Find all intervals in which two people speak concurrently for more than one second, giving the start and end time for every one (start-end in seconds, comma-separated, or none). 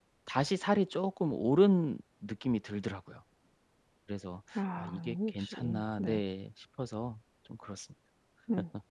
4.8-6.2